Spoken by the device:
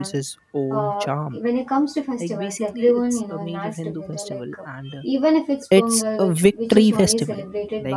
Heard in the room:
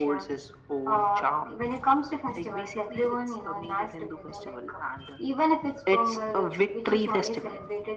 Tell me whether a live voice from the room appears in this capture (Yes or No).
No